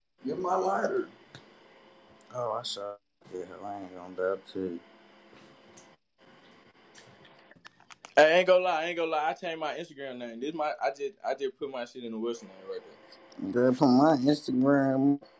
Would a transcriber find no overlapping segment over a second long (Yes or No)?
Yes